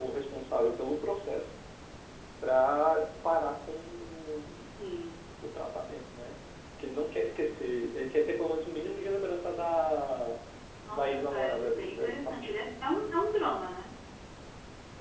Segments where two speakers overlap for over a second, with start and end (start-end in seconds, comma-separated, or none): 10.9-12.6